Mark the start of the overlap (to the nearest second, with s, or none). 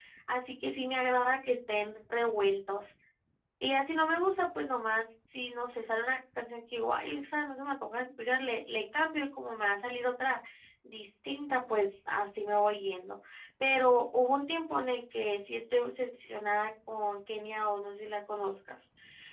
none